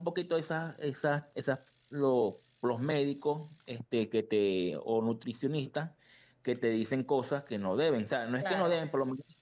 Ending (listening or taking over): listening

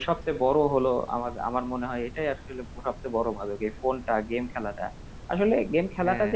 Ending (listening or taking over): listening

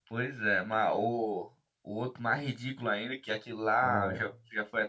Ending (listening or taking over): listening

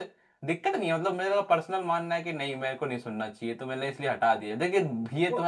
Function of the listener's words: listening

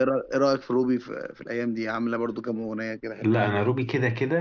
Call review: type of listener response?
taking over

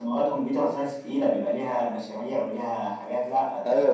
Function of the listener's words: taking over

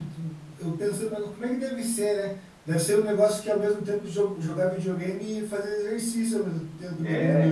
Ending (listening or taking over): taking over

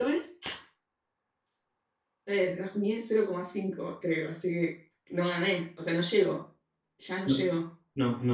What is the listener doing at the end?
taking over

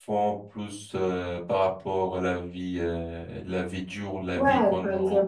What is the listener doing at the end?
taking over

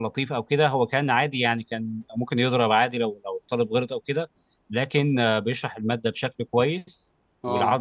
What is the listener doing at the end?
listening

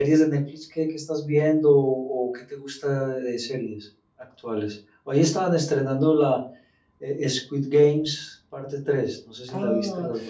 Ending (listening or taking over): taking over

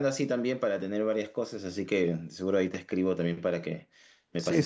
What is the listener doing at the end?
taking over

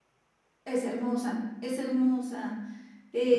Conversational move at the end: listening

